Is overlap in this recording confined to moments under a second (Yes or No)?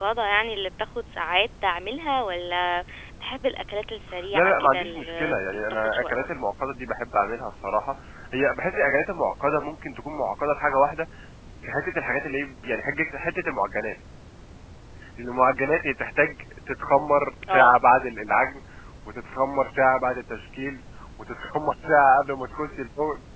No